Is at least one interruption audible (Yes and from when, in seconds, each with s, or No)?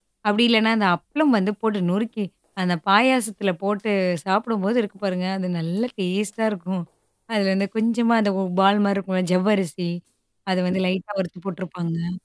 No